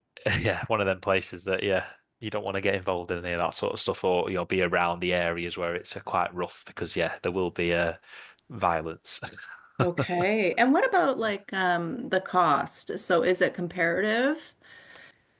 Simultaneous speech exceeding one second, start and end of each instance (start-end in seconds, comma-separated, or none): none